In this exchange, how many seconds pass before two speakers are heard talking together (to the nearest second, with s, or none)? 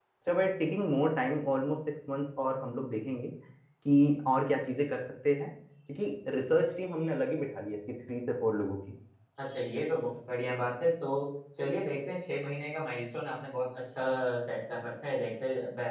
none